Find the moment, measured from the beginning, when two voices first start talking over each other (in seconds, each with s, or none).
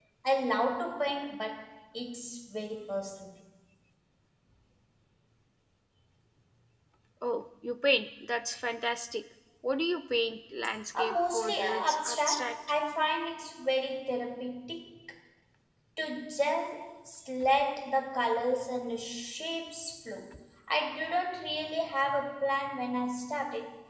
10.9 s